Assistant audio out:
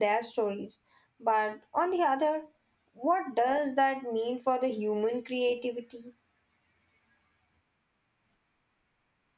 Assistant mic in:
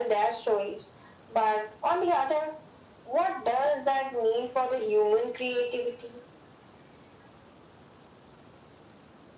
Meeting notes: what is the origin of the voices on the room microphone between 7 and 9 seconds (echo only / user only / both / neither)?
neither